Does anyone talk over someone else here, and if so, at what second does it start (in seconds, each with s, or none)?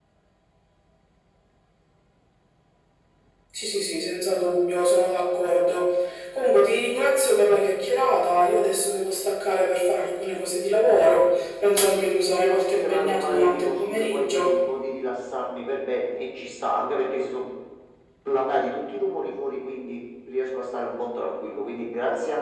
12.0 s